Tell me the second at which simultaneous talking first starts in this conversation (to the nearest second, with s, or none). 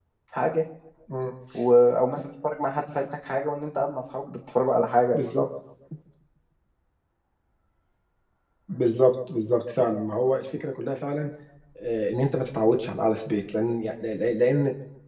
none